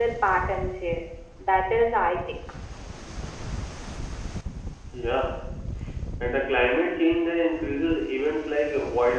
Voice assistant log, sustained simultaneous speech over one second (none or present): none